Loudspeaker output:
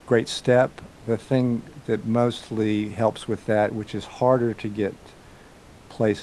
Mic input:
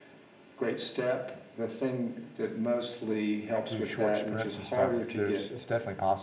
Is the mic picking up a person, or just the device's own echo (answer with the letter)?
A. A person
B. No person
A